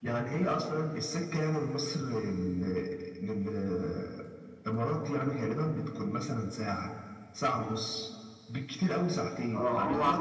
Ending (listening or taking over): taking over